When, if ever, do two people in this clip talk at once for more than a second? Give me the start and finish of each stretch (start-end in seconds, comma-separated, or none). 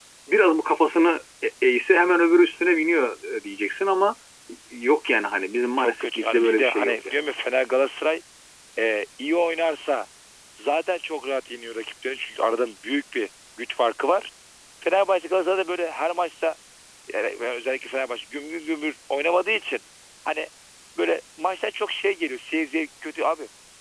5.8-7.1